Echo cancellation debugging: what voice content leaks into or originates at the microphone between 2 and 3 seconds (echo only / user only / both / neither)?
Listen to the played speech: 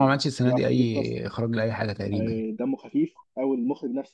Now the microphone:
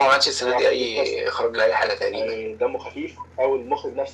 echo only